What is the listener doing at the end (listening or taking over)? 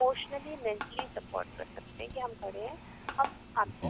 listening